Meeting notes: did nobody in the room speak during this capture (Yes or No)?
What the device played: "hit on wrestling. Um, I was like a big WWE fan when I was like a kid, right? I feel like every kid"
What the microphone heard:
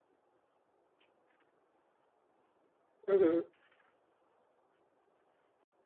No